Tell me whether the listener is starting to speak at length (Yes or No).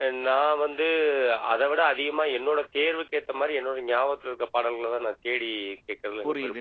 Yes